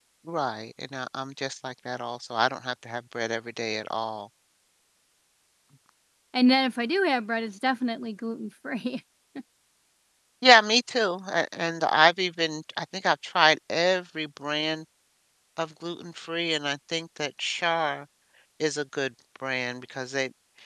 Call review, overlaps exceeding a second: none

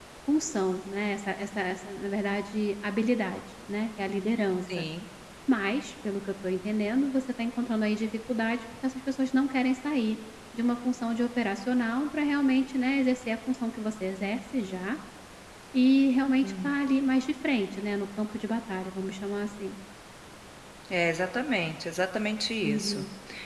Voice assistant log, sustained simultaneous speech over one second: none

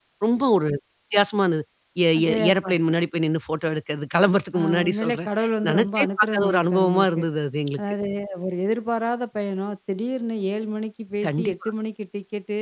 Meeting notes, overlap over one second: present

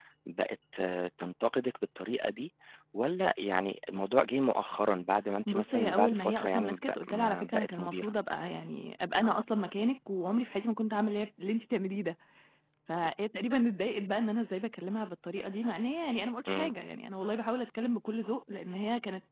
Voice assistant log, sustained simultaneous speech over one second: present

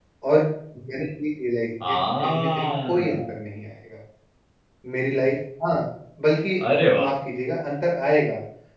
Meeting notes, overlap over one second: present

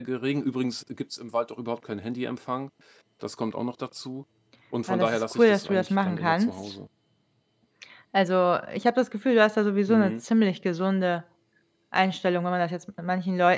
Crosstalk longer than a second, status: present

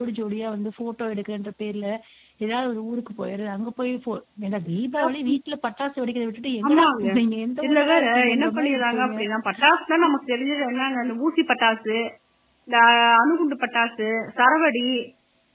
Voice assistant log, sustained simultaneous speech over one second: present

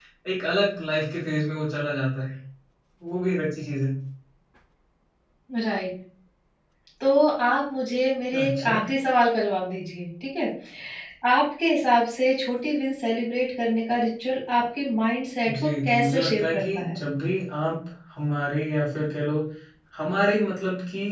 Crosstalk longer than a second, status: present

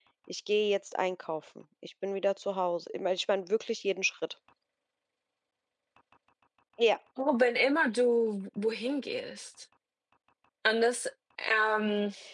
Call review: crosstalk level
none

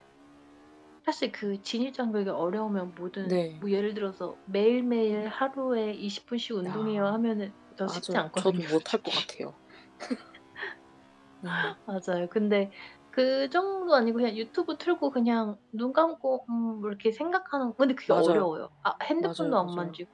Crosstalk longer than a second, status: present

